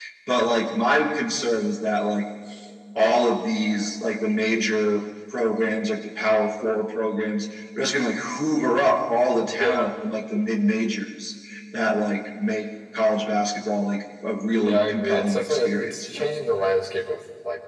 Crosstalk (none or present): present